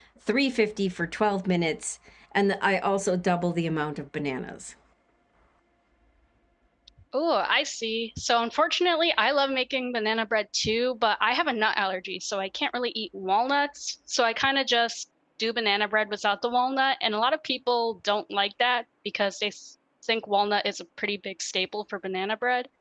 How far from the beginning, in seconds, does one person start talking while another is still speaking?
none

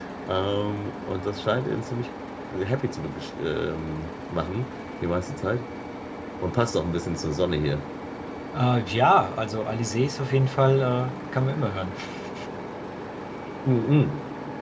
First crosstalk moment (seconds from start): none

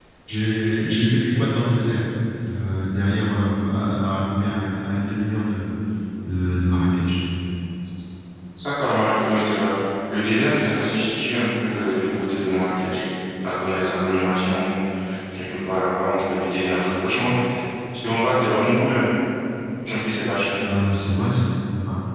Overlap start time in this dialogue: none

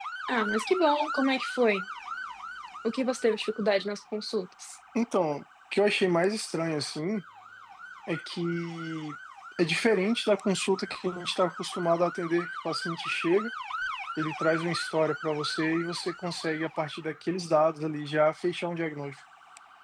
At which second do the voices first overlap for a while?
none

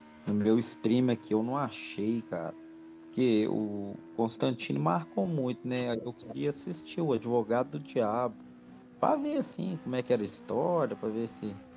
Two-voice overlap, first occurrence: none

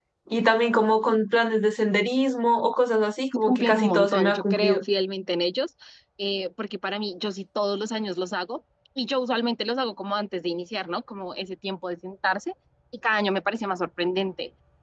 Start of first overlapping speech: 3.5 s

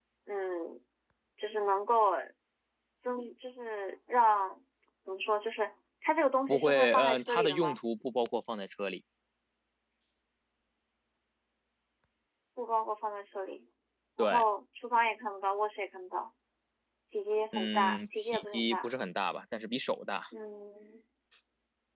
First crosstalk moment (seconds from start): 6.5 s

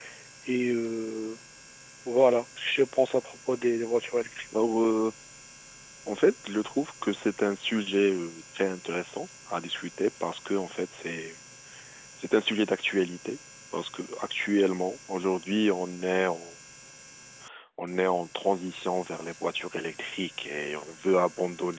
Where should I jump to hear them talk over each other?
none

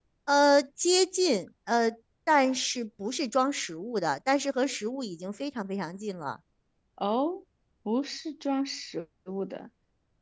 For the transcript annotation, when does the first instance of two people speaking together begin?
none

